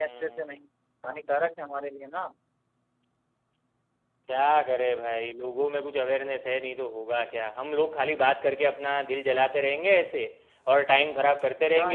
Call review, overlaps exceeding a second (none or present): none